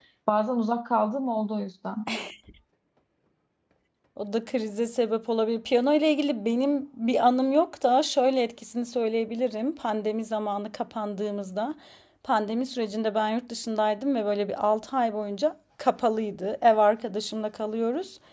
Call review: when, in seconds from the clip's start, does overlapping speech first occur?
none

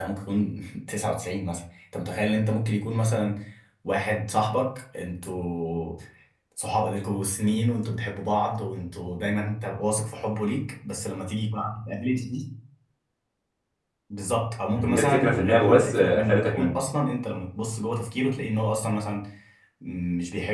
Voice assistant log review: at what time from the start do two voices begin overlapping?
15 s

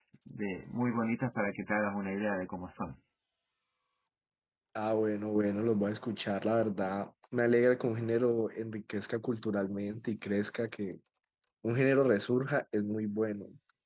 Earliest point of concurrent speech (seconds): none

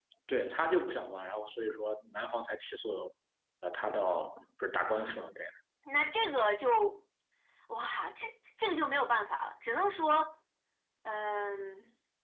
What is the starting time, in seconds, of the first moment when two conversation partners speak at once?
none

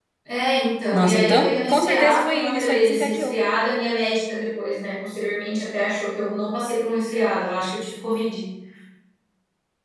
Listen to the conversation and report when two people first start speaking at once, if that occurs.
1 s

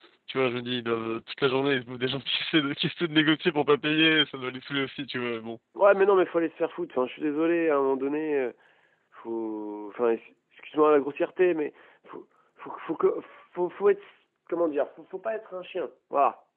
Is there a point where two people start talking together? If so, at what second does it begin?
none

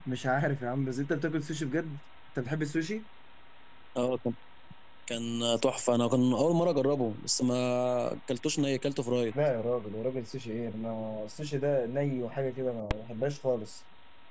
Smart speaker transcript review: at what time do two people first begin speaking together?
none

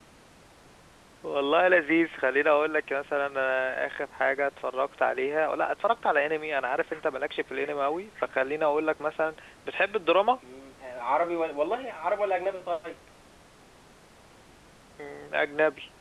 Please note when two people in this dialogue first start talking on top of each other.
none

